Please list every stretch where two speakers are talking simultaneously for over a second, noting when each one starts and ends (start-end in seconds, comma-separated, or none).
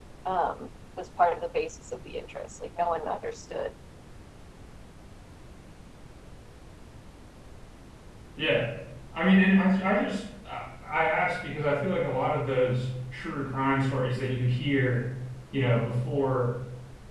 none